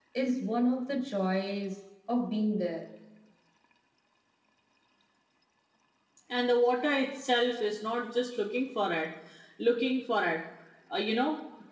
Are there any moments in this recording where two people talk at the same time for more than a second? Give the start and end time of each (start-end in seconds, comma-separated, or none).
none